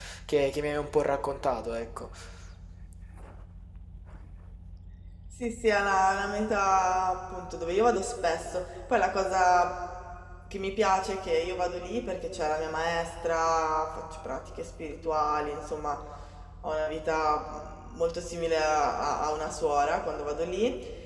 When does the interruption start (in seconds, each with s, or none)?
none